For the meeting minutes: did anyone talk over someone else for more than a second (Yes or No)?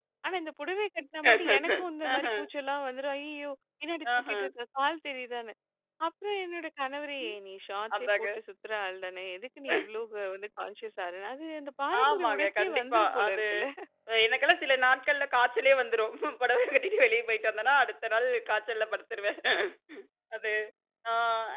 Yes